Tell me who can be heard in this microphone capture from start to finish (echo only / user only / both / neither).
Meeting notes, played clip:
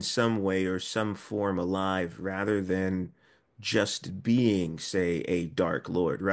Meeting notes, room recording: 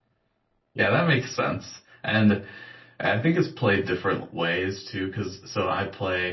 user only